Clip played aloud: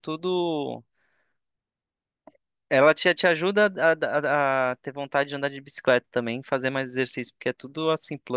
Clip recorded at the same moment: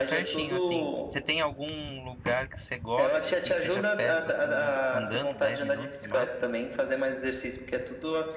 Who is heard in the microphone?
both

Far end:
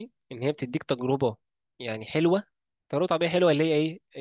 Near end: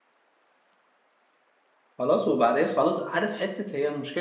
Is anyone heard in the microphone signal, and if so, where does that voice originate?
user only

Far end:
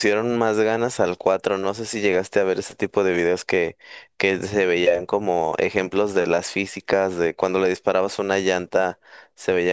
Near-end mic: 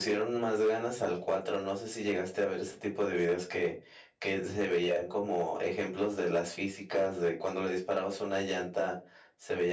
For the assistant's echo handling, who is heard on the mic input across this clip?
echo only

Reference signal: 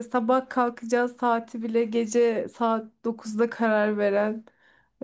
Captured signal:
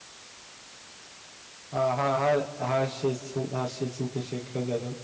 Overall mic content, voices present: user only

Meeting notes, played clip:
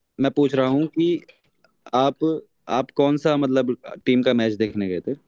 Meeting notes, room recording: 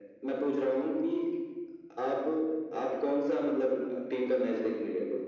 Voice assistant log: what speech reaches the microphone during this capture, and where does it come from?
echo only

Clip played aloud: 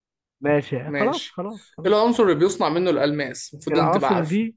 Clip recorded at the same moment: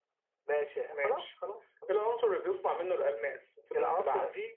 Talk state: echo only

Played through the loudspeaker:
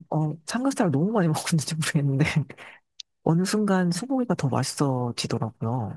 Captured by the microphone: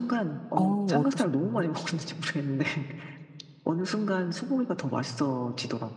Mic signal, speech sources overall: both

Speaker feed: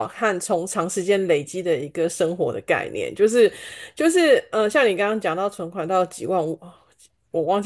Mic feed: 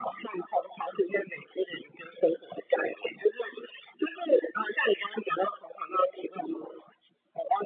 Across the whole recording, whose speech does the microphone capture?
echo only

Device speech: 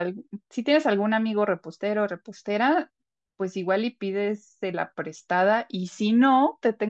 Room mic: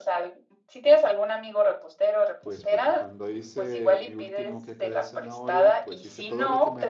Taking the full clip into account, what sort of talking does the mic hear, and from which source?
both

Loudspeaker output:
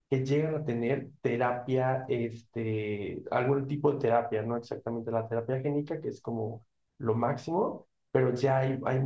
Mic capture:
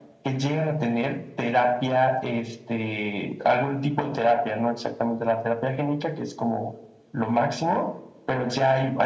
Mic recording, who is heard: echo only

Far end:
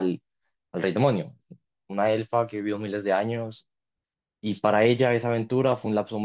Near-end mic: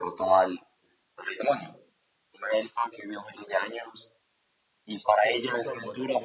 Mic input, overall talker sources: both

